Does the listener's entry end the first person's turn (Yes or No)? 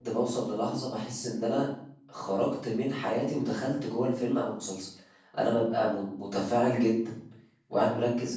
No